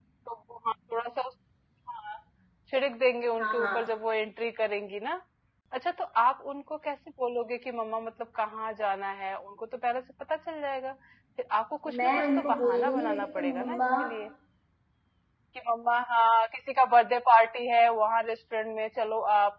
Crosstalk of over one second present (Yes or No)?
Yes